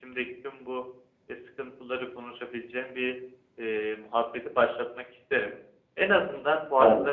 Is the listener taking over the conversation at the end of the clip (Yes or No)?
No